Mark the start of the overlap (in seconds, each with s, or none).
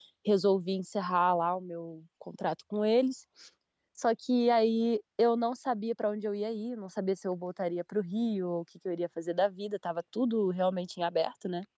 none